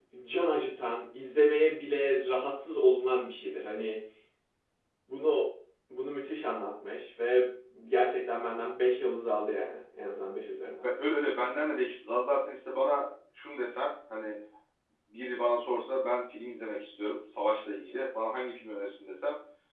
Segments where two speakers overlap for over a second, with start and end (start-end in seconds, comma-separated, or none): none